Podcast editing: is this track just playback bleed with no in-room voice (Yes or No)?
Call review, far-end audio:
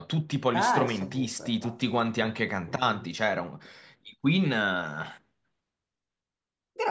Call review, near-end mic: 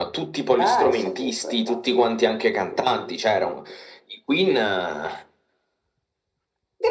Yes